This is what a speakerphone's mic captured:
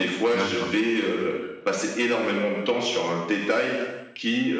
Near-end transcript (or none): d'accord.